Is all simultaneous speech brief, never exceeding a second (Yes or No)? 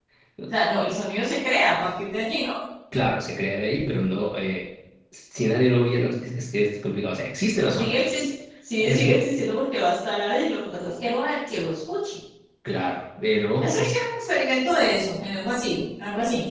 Yes